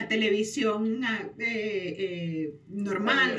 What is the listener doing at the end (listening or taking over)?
listening